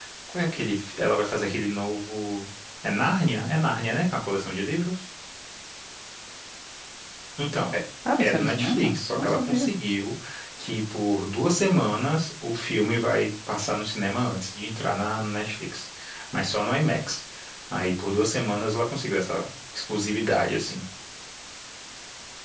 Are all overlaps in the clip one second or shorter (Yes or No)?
No